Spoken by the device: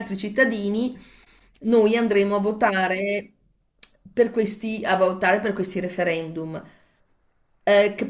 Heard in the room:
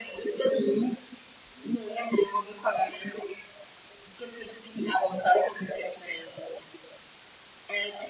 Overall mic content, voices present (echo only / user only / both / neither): echo only